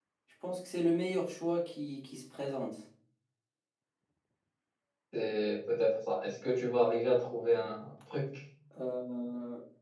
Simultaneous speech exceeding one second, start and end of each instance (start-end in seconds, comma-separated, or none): none